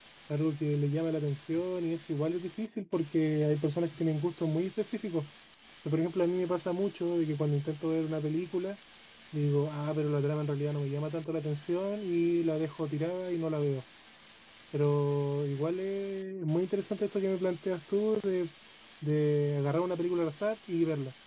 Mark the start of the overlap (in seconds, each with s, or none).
none